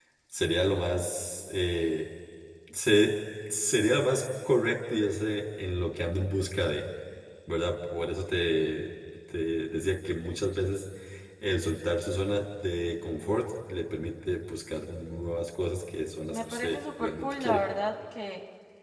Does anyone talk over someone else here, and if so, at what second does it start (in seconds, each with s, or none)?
16.3 s